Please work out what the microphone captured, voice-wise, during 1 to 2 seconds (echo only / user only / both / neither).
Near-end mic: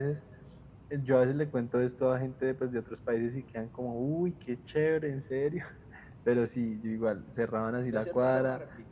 echo only